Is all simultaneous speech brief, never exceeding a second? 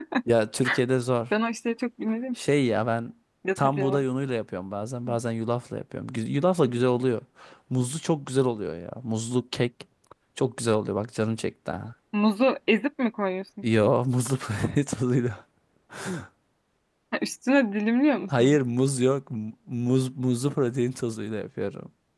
Yes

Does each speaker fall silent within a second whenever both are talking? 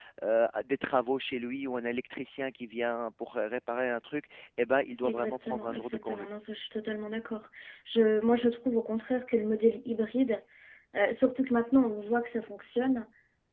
No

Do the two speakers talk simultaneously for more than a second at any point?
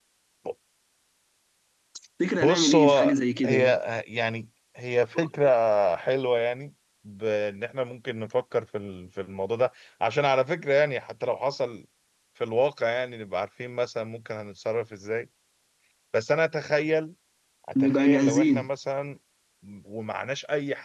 Yes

